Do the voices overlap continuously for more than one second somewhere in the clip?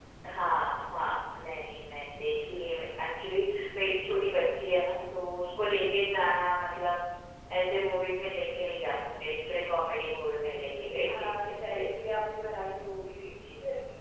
No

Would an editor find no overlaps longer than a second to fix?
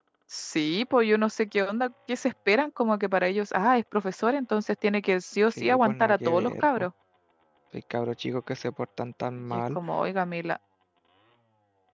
No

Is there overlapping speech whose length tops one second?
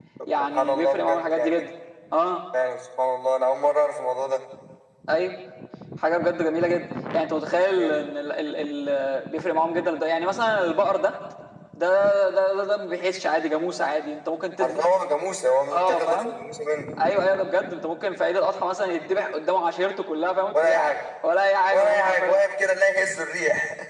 Yes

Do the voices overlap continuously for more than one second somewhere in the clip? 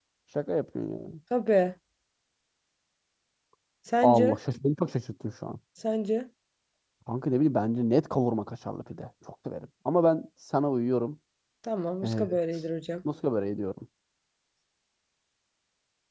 No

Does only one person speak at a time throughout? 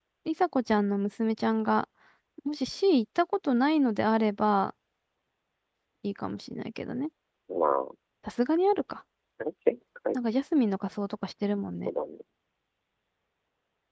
Yes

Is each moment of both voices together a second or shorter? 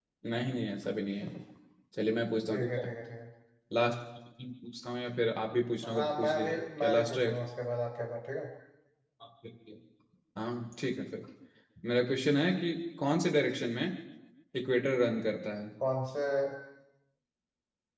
No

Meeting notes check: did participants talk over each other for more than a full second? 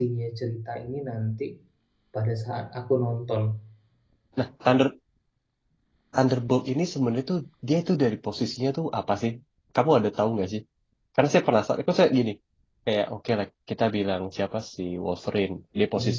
No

